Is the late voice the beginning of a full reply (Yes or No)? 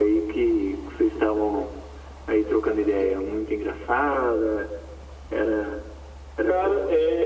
Yes